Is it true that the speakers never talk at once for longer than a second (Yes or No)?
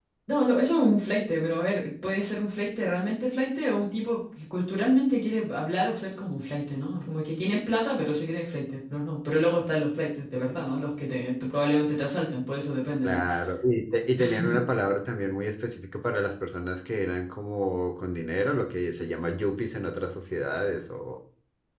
Yes